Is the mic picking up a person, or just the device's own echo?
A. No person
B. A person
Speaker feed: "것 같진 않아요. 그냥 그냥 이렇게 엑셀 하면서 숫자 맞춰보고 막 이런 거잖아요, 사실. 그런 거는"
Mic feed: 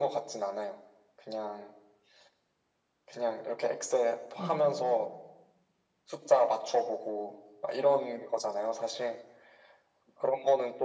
B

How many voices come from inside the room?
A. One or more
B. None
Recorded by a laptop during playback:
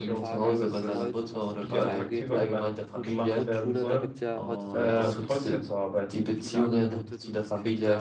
A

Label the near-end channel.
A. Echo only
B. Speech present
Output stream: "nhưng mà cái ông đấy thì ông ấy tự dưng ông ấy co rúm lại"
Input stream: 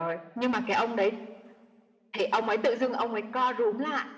A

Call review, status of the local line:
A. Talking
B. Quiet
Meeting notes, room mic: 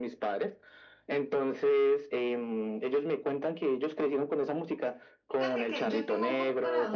A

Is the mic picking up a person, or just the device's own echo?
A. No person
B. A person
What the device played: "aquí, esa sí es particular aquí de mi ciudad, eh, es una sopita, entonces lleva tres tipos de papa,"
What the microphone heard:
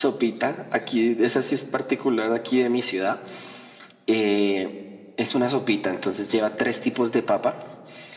A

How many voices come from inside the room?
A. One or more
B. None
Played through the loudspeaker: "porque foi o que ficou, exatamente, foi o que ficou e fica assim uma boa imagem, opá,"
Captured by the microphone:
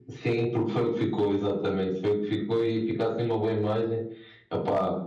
B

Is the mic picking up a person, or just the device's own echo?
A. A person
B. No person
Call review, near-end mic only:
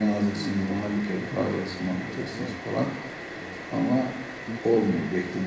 A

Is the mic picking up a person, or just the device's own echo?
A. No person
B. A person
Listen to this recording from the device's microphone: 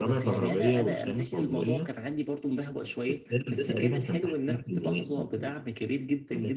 B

